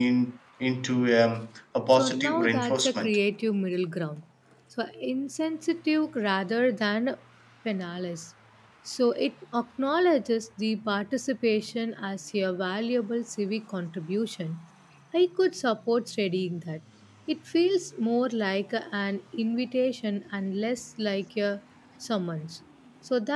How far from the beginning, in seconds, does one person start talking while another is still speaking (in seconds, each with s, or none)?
1.9 s